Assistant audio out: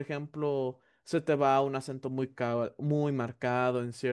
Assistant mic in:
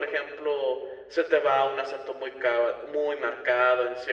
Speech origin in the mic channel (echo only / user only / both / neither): echo only